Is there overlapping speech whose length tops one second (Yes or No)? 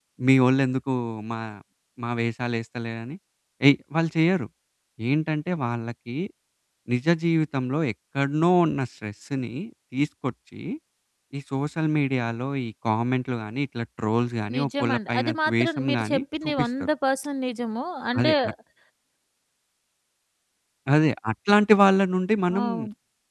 Yes